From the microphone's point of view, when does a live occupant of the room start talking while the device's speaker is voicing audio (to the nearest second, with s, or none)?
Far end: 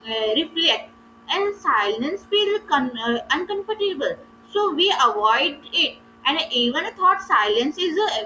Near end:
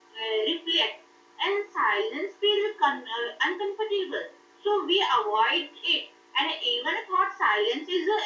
none